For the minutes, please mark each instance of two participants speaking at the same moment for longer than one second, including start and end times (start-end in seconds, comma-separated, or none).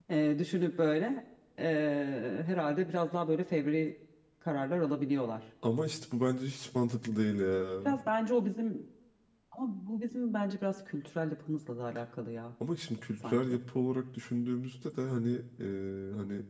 none